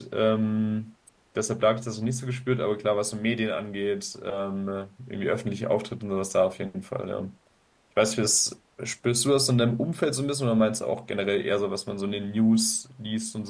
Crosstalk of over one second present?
No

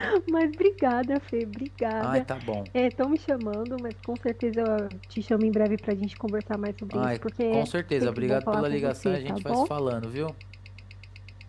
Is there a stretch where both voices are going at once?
Yes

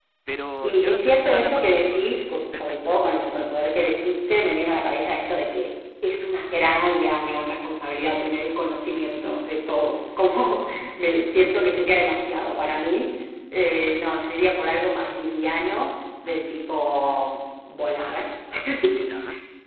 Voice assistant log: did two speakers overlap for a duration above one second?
Yes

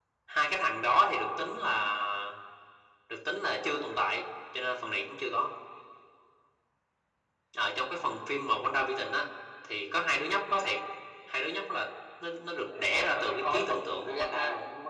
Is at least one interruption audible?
Yes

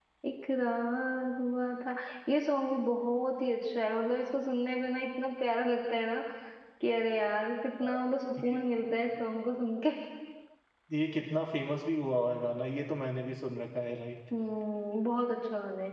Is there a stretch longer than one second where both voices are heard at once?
No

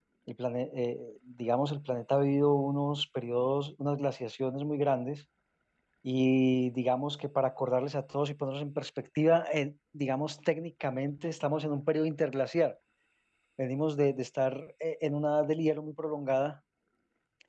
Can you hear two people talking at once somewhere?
No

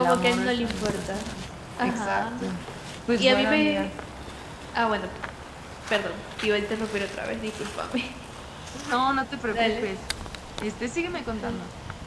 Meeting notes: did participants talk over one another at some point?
Yes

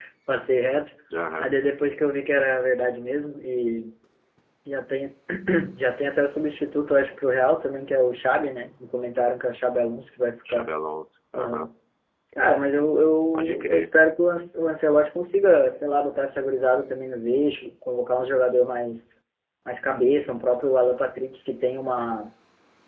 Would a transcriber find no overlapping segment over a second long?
Yes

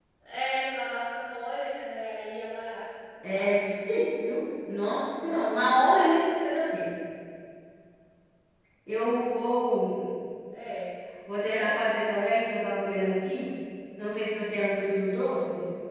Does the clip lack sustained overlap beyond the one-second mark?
Yes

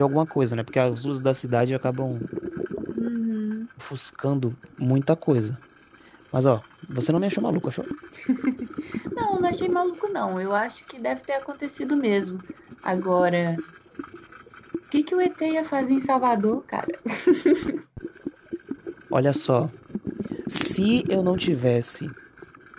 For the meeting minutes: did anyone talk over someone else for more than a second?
No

